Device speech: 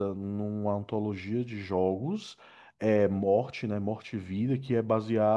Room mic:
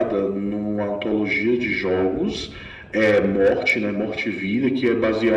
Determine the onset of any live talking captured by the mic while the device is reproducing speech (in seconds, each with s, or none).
none